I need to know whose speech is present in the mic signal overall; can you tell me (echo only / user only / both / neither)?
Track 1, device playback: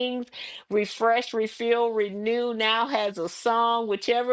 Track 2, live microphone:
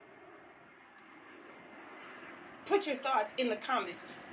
user only